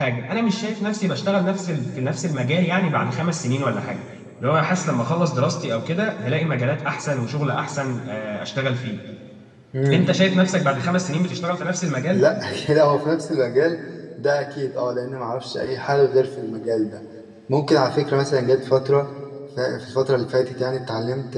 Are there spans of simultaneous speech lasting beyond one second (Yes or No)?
No